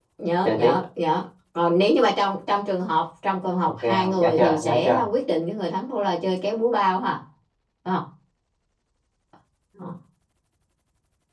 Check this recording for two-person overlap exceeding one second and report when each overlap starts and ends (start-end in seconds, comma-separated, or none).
3.8-5.0